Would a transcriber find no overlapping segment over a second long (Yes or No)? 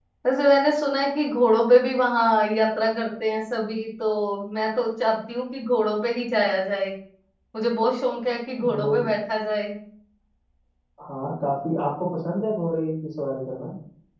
Yes